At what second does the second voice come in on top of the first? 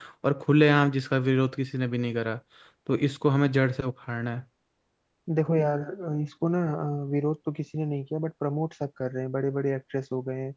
none

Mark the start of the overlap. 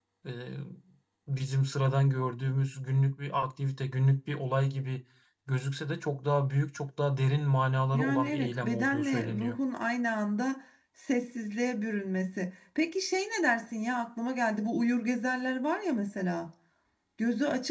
7.9 s

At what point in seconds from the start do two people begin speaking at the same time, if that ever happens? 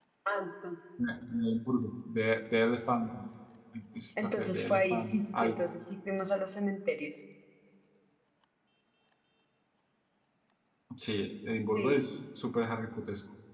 4.4 s

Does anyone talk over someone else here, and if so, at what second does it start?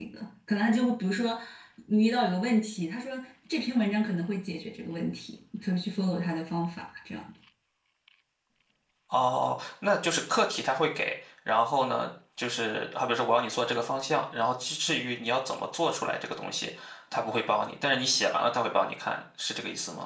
none

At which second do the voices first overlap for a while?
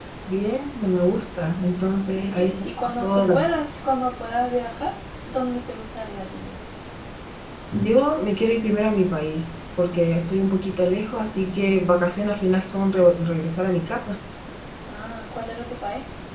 2.1 s

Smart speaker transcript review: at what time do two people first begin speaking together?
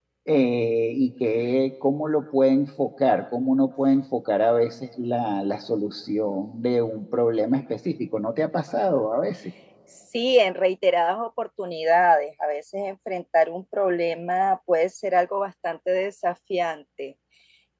none

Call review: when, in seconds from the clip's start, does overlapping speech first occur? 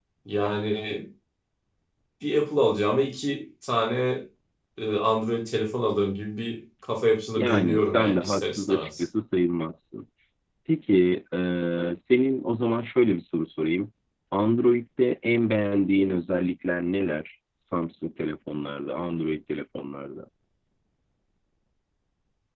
7.4 s

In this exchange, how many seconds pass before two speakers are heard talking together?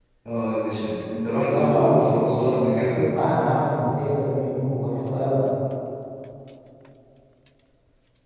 1.4 s

